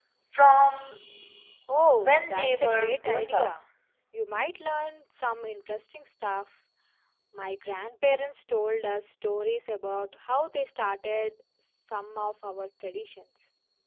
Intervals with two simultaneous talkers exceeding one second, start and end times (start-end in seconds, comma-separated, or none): 2.0-3.5